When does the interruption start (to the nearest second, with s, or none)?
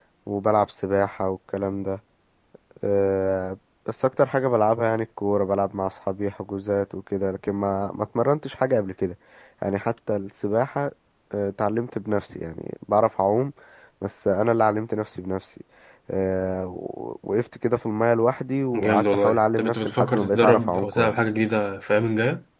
19 s